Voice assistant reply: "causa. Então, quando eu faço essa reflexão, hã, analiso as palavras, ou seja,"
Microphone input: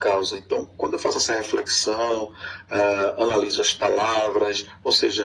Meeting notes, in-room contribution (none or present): none